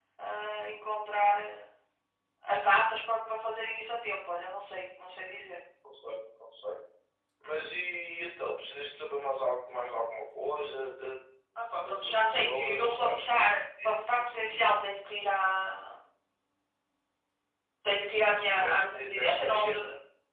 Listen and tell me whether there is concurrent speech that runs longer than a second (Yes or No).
Yes